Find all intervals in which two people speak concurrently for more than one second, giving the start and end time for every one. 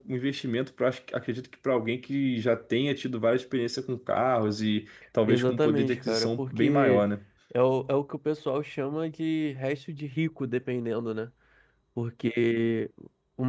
5.2-7.0

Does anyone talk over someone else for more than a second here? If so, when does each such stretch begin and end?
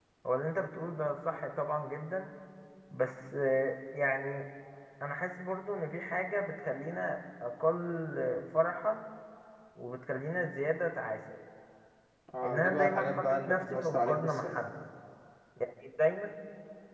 12.4-14.6

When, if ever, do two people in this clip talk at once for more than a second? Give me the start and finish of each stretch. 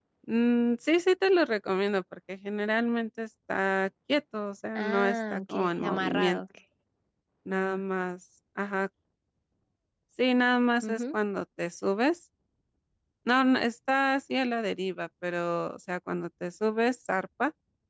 4.8-6.4

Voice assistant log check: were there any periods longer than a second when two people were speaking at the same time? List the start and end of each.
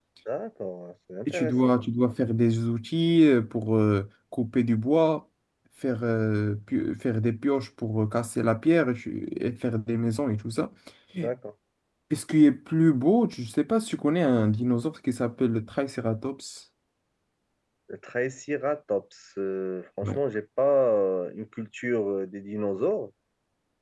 none

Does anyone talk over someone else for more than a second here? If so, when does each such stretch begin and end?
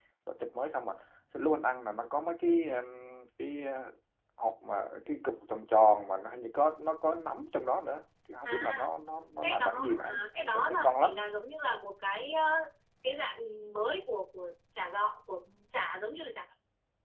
9.4-11.1

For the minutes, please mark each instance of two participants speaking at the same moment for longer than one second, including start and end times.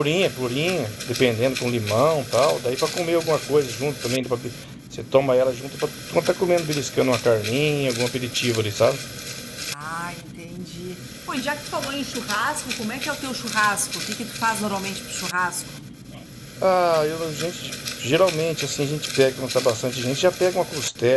none

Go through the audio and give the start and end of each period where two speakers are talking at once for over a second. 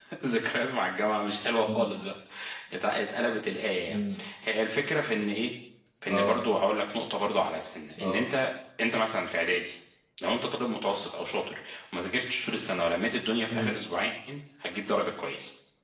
none

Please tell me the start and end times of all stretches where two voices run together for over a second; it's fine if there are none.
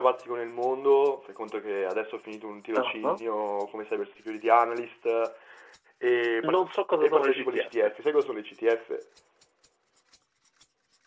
6.4-7.9

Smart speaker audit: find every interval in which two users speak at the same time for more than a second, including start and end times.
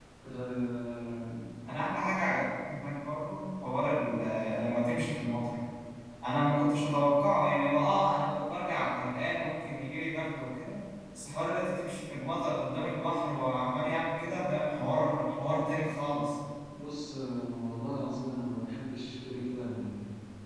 none

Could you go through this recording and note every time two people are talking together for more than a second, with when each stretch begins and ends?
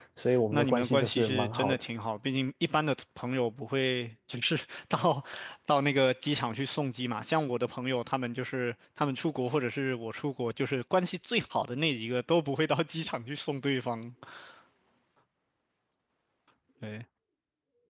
0.5-1.8

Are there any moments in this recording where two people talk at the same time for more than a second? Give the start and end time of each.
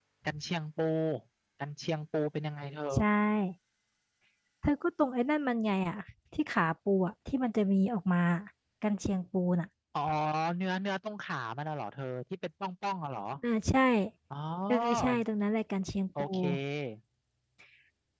none

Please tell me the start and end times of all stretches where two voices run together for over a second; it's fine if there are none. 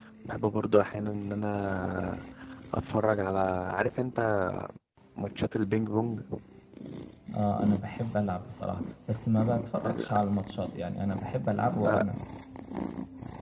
none

